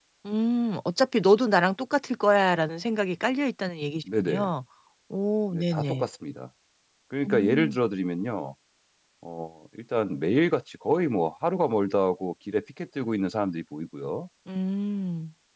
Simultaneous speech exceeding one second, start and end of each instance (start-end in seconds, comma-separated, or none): none